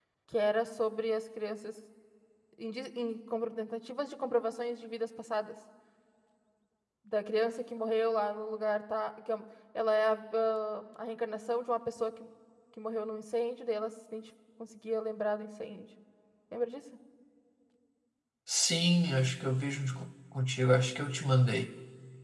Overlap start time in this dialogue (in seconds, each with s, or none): none